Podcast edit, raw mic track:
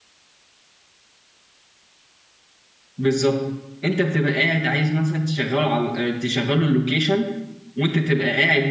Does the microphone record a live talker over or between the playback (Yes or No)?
Yes